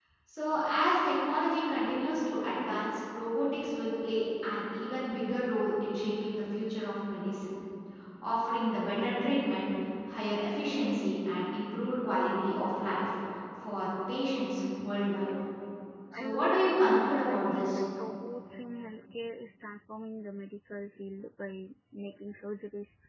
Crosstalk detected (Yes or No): Yes